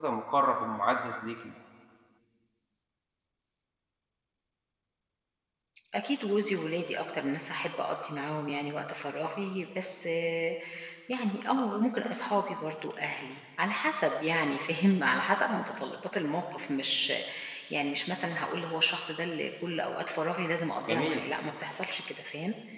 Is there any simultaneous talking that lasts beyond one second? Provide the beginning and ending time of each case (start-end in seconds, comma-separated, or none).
none